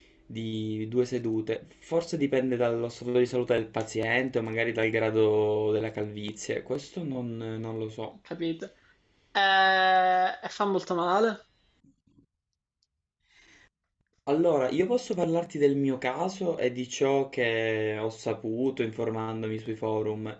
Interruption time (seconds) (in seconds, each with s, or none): none